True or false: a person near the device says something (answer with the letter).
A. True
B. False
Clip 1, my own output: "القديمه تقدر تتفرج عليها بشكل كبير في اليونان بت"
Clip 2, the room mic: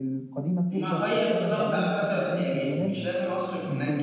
A